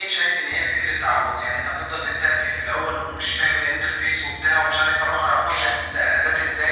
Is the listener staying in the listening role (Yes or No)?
Yes